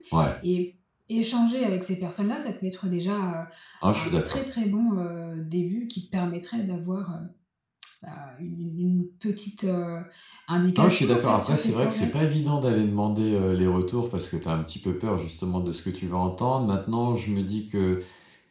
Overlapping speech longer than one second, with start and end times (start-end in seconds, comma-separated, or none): 10.8-12.1